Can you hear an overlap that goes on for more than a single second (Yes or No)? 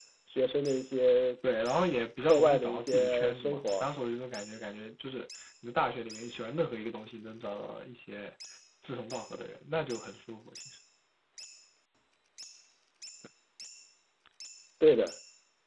Yes